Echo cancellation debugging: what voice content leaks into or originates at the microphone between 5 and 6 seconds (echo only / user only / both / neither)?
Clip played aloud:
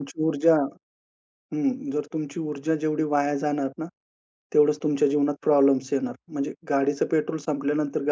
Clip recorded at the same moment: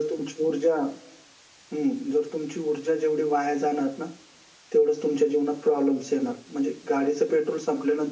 echo only